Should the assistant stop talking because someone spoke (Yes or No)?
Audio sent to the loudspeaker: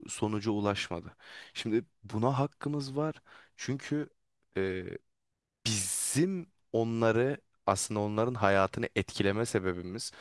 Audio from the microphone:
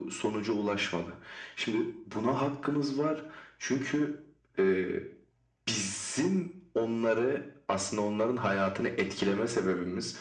No